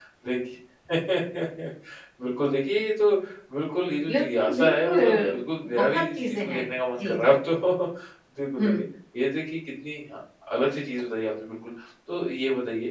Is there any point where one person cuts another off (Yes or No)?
Yes